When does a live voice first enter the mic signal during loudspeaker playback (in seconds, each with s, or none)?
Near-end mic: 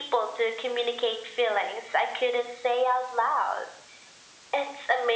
none